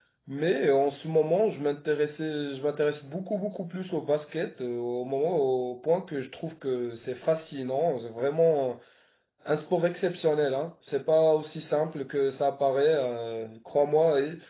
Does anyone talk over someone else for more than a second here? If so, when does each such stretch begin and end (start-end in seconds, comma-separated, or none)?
none